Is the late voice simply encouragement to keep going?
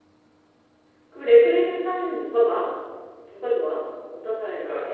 No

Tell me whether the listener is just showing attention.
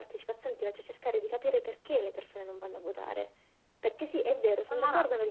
Yes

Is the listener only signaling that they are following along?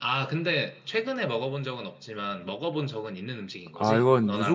No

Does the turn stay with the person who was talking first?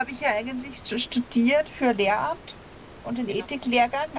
Yes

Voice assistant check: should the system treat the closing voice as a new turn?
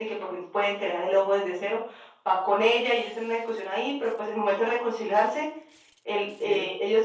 No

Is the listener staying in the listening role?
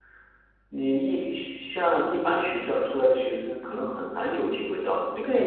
No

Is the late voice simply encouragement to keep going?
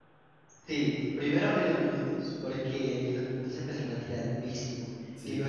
Yes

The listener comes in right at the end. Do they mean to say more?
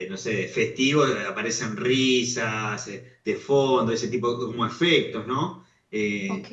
No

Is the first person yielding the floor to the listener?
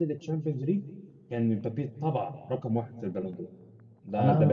Yes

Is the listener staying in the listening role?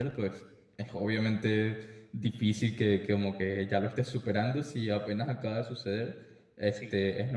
Yes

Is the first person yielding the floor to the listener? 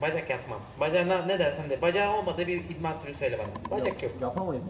Yes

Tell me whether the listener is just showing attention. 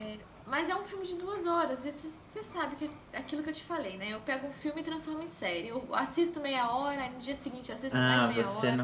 No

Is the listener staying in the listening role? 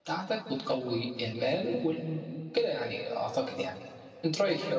No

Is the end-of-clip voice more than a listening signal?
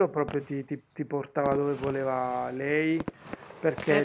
No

